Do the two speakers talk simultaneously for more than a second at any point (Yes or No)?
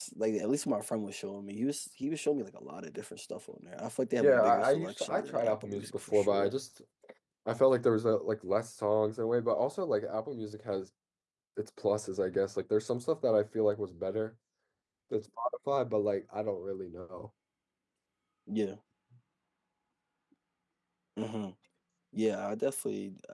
Yes